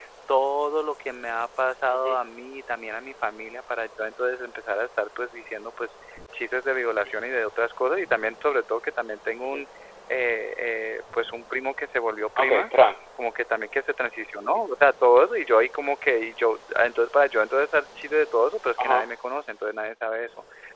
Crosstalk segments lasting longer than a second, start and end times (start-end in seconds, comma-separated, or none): none